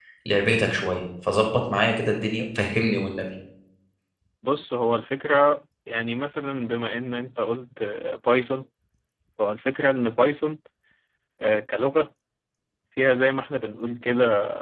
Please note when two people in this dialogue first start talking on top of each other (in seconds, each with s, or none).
none